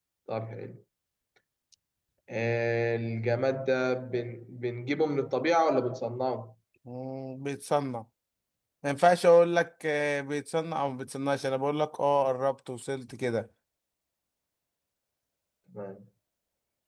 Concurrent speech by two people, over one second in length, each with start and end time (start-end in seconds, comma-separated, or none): none